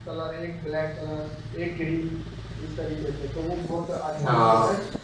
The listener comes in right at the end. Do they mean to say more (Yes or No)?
No